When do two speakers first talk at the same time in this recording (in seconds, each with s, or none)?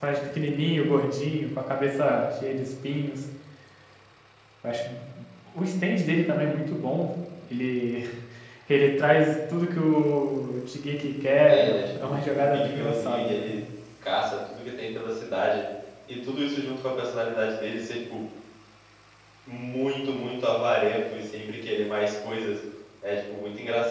11.5 s